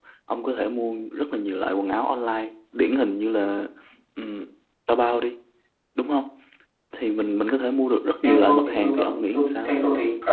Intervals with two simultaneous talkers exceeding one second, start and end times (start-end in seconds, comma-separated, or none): 8.2-9.7